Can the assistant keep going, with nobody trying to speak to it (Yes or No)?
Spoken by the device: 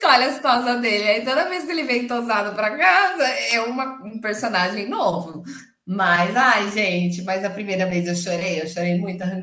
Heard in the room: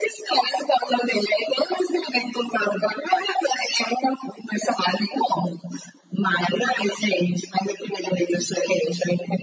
Yes